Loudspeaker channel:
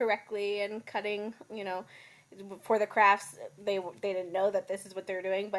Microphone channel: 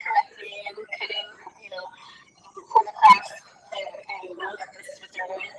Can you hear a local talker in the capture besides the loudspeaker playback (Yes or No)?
No